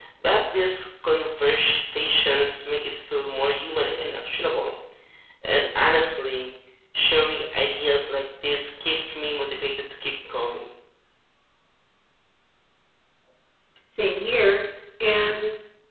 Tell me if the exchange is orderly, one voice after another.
Yes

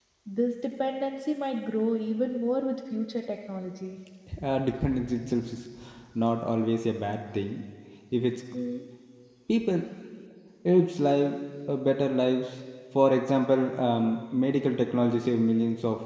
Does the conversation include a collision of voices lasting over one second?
No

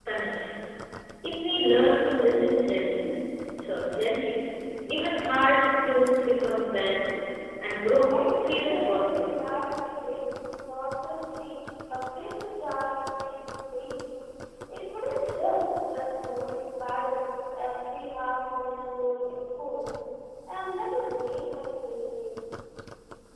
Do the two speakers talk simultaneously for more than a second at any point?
Yes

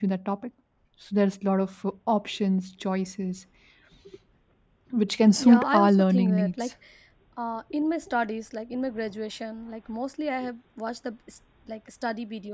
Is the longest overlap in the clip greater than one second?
Yes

